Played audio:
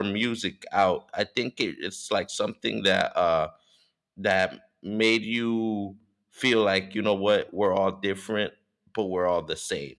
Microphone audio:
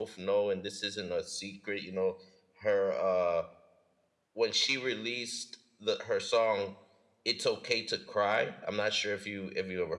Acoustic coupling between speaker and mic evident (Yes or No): No